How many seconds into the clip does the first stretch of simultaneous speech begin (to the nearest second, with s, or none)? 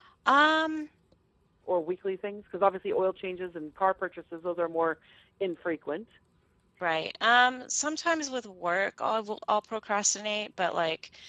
none